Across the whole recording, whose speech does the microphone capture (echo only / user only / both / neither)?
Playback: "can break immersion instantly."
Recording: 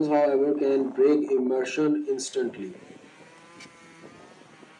echo only